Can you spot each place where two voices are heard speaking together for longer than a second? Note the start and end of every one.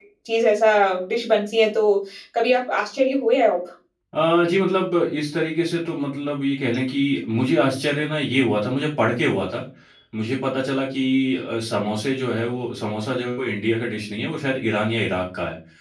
none

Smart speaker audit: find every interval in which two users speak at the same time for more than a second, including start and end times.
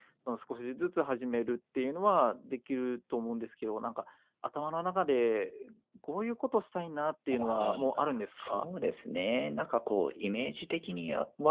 7.3-8.7

